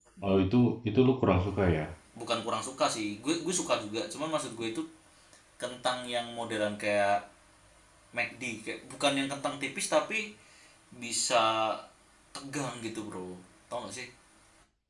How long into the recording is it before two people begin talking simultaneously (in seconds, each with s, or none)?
none